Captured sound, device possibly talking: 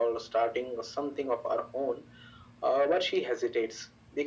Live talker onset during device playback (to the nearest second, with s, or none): none